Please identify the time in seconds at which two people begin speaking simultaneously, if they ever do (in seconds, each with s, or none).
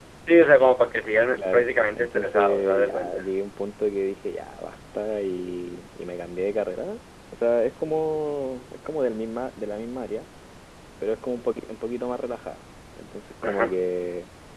1.4 s